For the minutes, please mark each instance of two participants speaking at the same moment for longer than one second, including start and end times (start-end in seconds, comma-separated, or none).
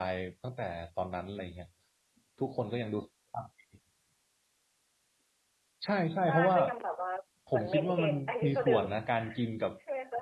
7.5-8.8